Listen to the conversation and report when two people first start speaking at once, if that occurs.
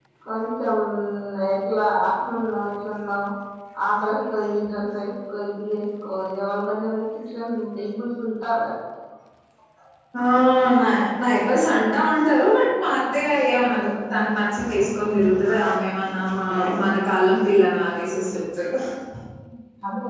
none

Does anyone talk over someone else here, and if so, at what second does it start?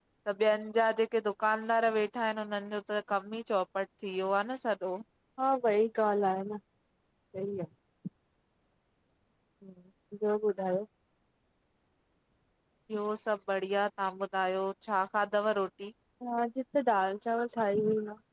none

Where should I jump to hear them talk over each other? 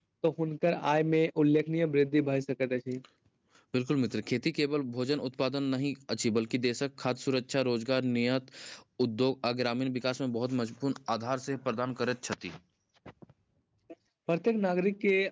none

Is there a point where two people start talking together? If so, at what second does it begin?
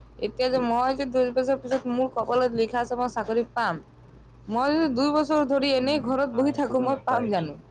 5.8 s

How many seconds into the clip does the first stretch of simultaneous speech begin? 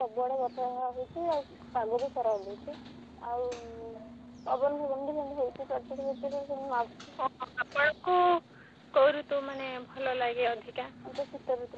none

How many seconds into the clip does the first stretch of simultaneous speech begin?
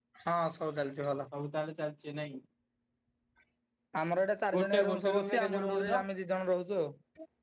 4.5 s

